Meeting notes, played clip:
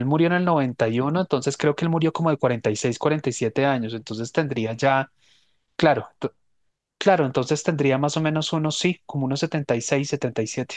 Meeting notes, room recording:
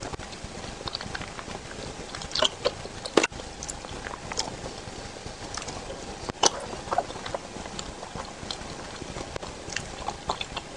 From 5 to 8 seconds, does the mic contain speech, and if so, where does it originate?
neither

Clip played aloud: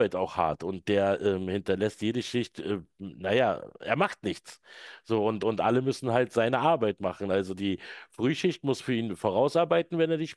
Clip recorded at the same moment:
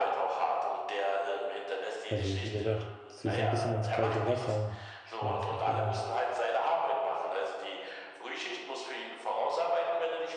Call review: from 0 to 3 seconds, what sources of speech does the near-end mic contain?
both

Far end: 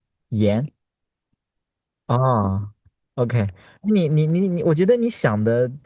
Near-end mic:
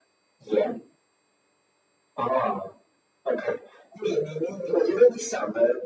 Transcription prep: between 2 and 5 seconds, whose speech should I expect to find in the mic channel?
echo only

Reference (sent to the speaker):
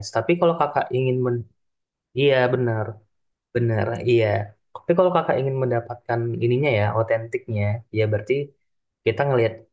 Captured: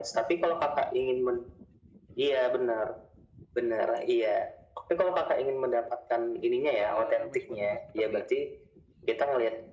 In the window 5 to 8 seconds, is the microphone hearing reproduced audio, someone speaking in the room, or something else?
both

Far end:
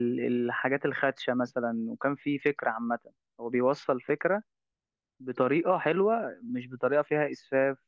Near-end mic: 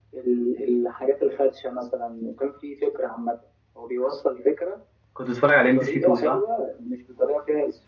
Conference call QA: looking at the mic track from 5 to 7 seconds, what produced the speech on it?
both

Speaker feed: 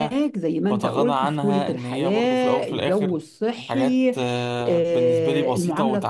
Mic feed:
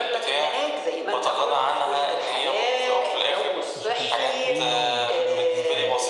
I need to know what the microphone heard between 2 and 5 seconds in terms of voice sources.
both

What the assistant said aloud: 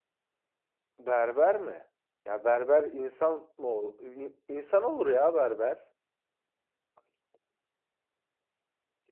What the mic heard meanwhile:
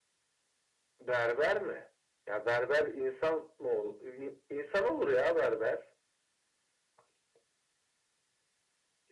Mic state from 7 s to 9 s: neither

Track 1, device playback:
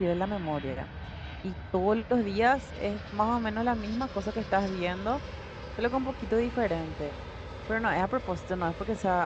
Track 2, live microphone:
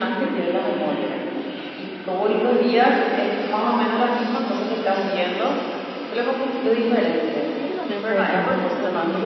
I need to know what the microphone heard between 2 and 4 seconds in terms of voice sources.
echo only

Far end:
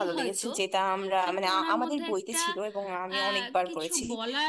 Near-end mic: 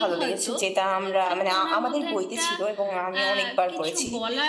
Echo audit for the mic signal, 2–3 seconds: echo only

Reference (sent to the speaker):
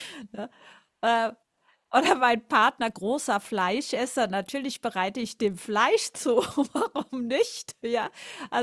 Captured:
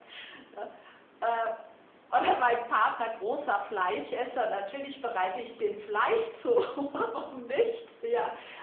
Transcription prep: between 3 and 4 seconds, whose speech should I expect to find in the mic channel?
echo only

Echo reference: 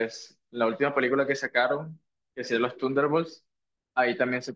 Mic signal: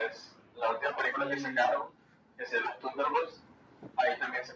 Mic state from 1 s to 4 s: both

